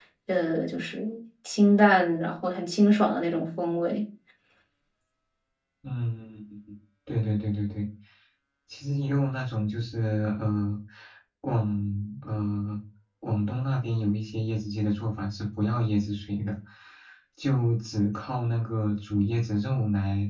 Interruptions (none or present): none